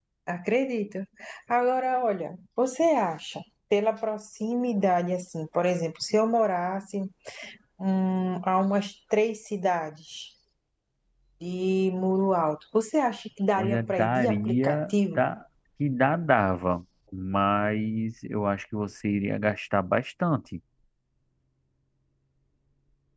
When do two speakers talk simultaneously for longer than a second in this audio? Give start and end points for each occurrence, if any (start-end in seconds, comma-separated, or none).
13.6-15.2